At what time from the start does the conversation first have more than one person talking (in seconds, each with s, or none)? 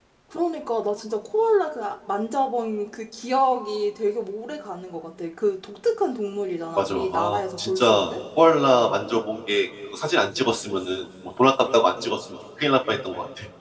6.8 s